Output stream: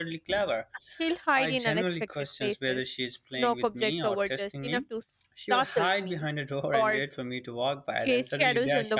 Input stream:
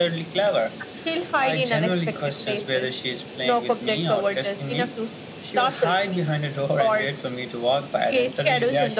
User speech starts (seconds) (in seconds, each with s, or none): none